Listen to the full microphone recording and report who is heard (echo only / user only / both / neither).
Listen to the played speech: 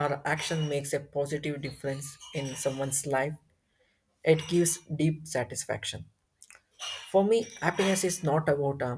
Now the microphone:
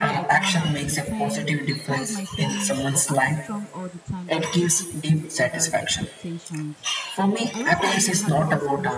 both